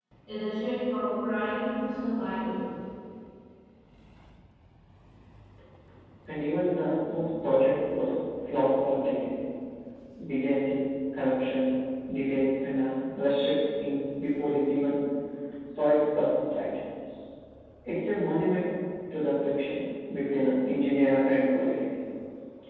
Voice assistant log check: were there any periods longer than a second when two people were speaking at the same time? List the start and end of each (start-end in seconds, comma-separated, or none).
none